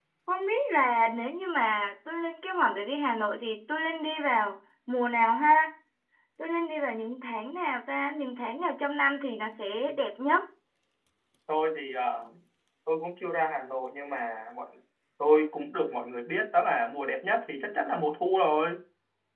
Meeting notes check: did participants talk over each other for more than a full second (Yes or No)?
No